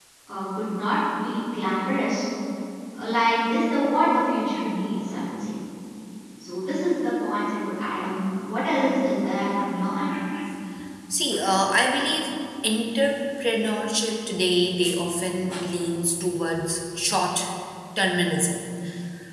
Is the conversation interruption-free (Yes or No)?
Yes